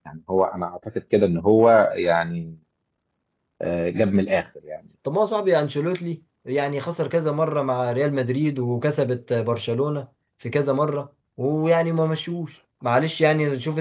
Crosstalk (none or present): none